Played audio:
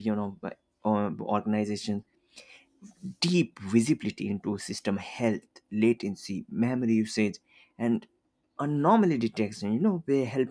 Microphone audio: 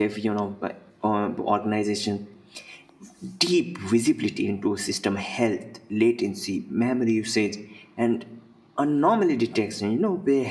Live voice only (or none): none